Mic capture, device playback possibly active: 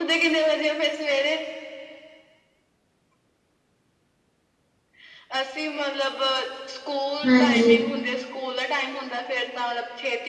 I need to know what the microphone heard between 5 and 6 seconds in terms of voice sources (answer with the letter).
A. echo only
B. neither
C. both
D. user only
A